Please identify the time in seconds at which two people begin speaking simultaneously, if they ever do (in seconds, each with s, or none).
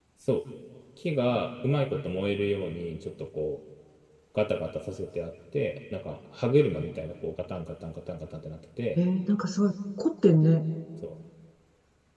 none